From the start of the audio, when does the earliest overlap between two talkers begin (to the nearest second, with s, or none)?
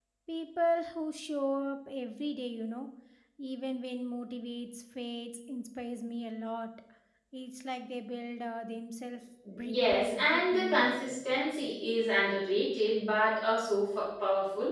9 s